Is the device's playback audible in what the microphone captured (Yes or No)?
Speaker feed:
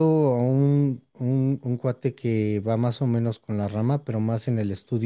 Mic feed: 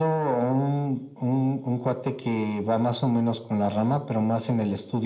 Yes